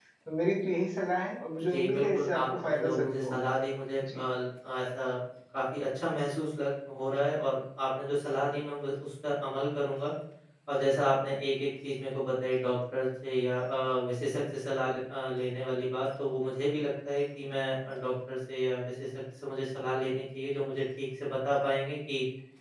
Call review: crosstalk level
present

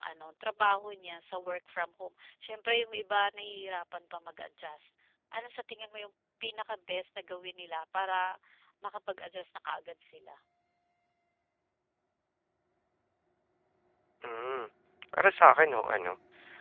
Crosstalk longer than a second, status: none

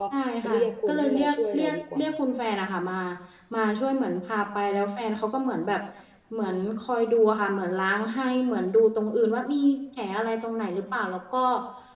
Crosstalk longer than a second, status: present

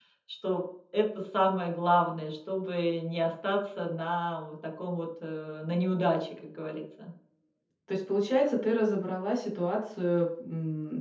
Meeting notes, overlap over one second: none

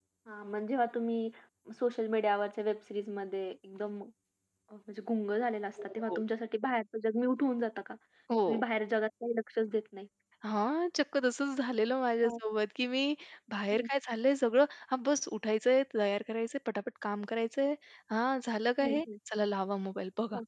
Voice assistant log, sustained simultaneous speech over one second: none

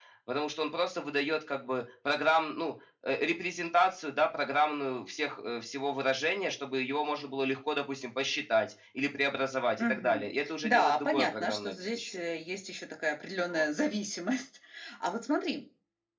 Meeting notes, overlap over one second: present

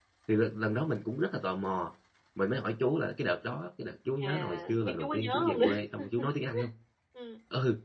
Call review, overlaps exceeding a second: present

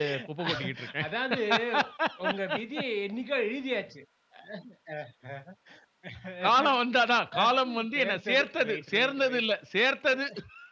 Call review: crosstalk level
present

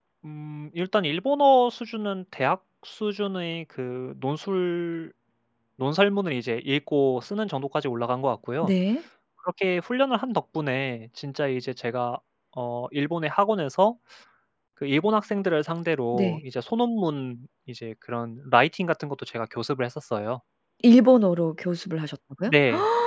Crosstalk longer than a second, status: none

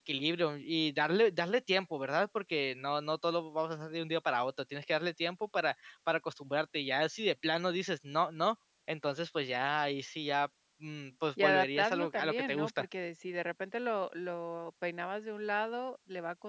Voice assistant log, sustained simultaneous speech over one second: present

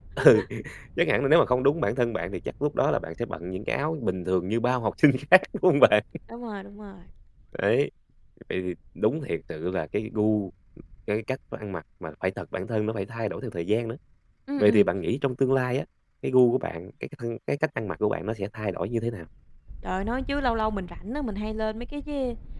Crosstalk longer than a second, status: none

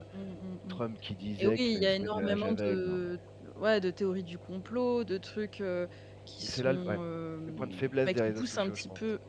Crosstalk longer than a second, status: present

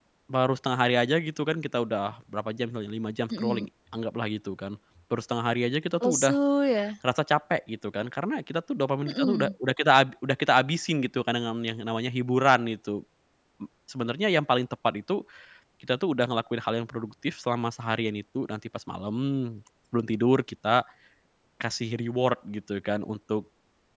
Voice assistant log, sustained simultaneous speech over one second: none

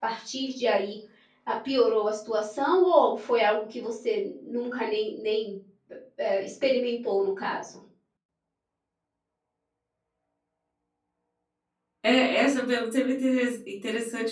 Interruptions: none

